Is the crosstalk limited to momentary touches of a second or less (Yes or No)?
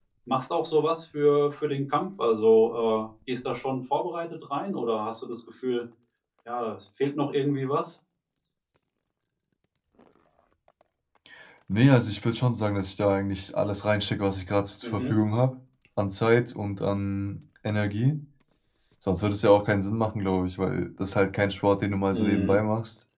Yes